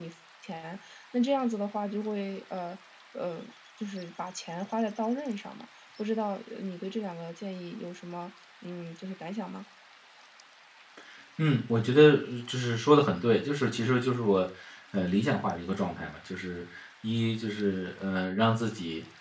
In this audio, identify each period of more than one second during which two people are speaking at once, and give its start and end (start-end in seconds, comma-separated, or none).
none